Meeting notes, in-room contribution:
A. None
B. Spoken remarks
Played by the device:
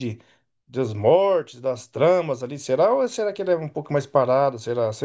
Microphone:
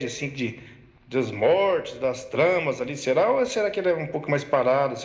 A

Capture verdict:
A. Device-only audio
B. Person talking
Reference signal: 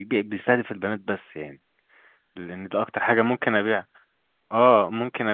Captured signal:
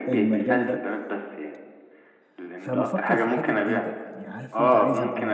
B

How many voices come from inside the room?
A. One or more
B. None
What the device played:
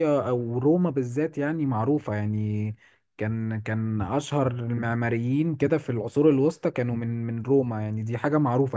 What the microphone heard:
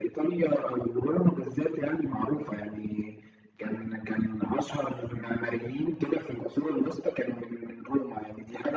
B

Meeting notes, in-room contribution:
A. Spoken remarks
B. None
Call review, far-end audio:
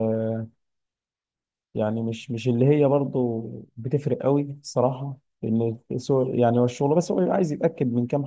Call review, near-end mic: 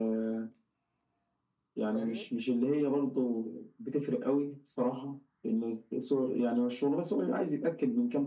A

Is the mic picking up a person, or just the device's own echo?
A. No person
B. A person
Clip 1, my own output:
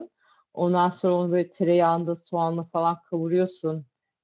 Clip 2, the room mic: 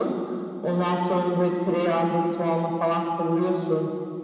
A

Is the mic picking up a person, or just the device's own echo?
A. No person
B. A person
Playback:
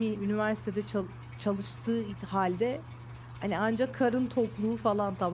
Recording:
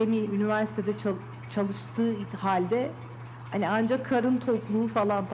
A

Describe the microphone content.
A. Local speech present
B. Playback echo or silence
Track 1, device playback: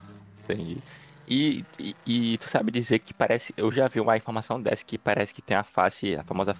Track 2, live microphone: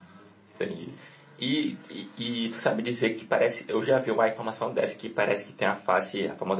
B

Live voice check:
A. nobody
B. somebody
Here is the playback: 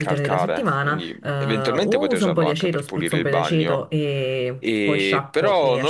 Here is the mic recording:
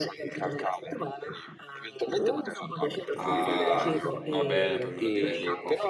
B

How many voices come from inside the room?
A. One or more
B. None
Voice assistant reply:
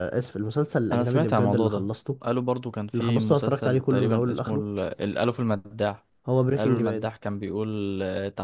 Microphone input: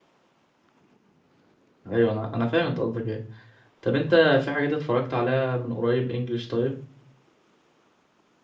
A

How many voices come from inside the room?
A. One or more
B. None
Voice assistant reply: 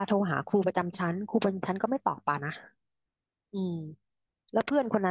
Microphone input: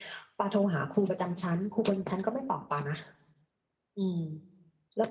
B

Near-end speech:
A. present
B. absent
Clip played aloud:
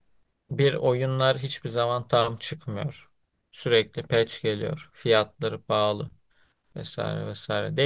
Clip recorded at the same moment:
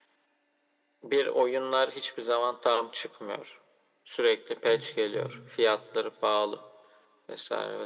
A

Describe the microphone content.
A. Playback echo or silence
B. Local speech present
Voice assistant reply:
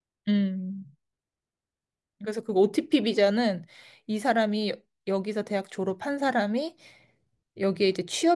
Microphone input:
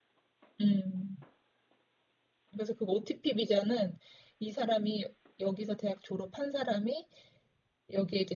A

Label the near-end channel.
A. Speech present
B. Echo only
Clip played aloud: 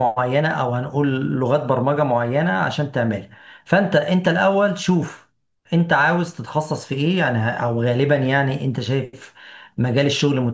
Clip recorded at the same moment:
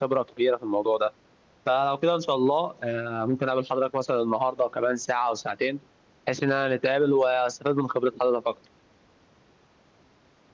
A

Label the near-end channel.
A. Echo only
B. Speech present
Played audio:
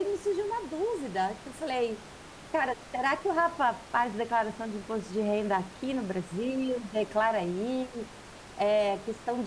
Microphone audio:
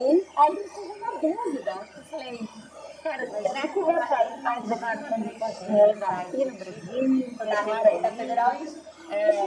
B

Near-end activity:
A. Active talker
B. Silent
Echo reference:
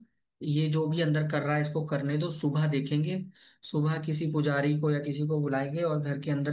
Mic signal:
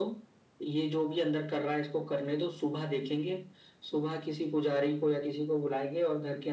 B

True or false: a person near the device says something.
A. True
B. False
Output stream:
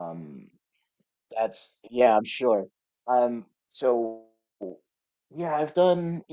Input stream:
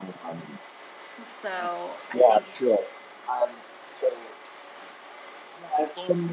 A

